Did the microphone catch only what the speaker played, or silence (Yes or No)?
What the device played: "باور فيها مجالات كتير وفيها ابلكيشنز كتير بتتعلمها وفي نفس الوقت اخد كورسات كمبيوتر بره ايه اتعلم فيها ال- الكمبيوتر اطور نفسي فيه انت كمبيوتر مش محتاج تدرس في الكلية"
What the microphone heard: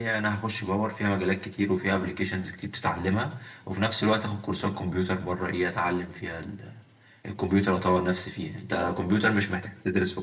Yes